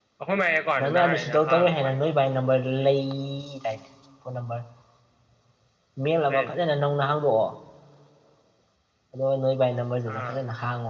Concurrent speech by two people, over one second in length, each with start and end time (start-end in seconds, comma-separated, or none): 0.8-2.1